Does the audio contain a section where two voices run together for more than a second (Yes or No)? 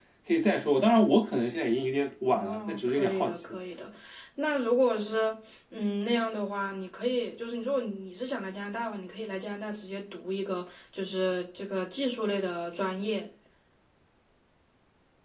Yes